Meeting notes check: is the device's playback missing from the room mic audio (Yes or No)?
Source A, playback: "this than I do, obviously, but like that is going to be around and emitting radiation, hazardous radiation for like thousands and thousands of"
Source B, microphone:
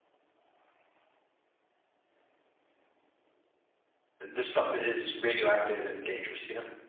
Yes